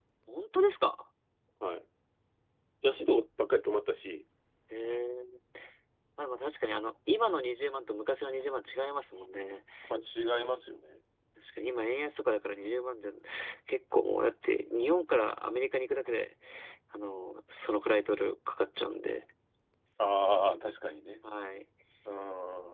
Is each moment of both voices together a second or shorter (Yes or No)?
Yes